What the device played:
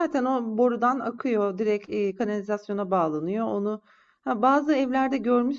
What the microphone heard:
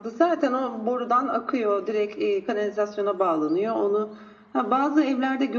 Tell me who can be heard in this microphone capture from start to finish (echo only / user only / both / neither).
echo only